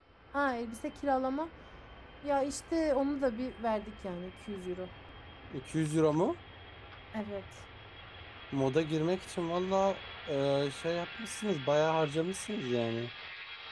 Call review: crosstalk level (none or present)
none